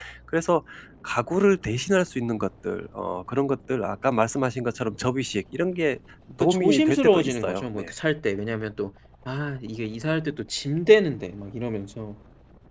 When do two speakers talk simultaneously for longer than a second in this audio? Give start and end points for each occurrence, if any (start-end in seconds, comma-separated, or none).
6.4-7.8